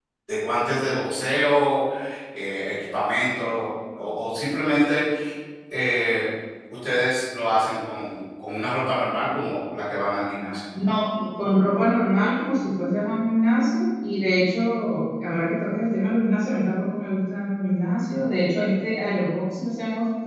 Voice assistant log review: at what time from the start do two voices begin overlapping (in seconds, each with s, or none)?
none